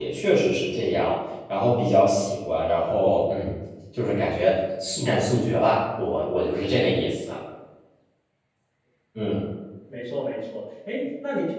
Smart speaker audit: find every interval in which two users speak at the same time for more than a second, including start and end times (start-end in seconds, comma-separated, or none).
none